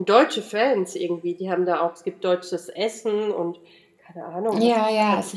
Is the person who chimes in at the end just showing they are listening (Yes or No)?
No